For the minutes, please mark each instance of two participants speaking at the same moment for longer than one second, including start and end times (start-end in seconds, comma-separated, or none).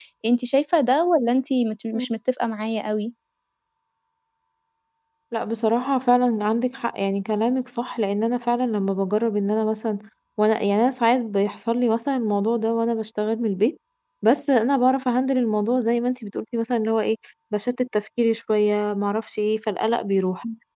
none